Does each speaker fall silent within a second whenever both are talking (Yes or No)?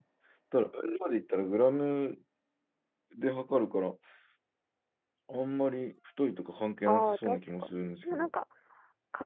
No